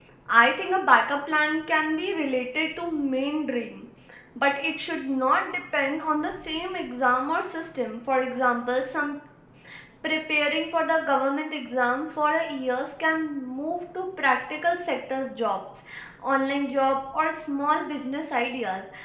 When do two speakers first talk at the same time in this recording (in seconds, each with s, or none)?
none